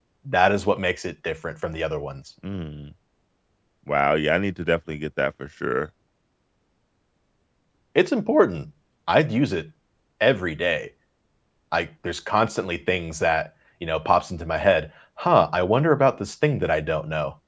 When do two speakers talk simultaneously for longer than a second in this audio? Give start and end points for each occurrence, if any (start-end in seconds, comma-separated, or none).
none